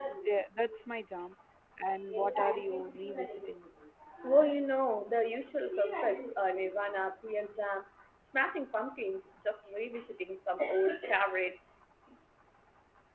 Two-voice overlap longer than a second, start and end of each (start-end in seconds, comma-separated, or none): 2.2-3.5